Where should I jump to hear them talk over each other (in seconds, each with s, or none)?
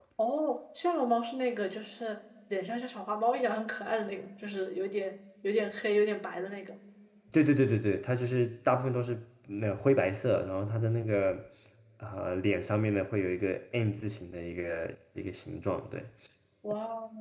none